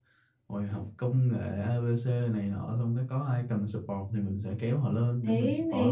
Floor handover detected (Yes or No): Yes